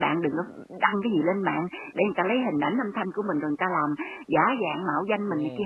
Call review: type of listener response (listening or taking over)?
taking over